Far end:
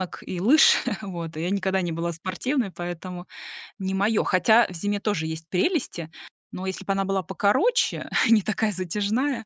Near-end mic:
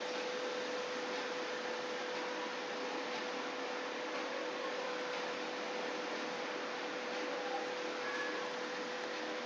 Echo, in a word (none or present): none